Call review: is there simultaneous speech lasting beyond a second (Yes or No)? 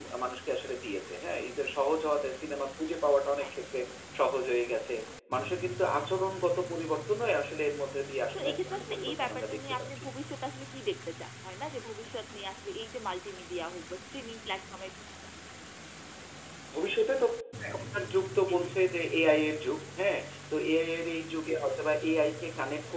Yes